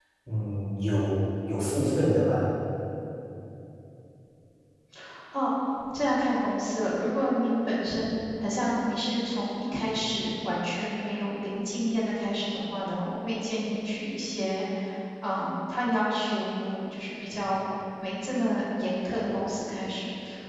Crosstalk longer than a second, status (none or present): none